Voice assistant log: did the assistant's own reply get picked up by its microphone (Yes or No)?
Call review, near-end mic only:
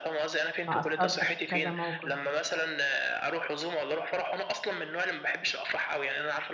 Yes